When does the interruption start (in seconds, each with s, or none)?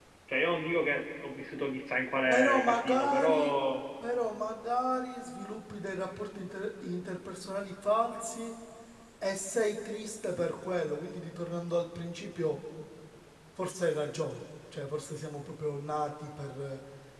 2.3 s